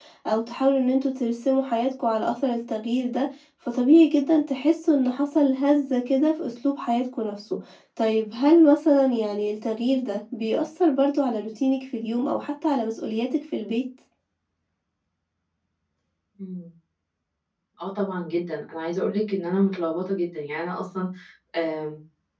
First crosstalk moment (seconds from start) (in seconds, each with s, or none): none